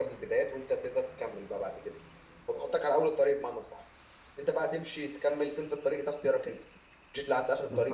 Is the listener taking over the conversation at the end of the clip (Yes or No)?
Yes